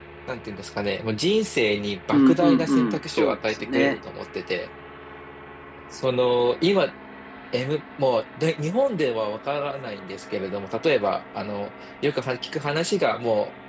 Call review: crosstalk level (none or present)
present